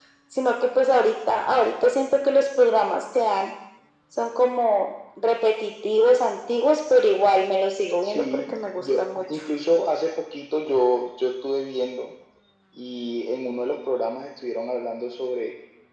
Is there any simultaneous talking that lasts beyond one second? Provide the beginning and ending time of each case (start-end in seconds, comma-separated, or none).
8.0-9.3